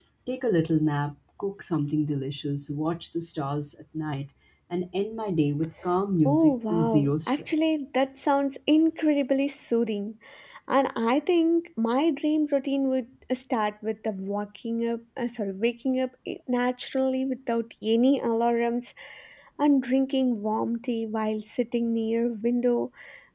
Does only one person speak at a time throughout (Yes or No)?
No